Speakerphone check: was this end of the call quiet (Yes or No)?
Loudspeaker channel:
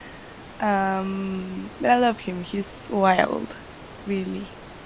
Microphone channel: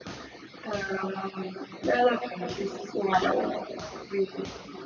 Yes